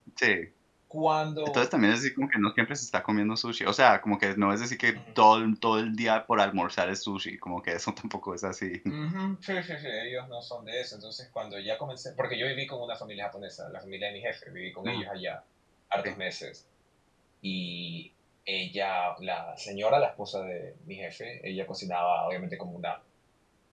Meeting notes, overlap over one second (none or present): none